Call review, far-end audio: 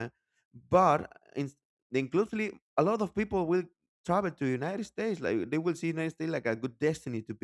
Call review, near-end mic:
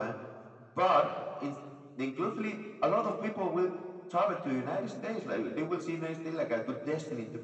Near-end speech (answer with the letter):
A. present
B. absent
B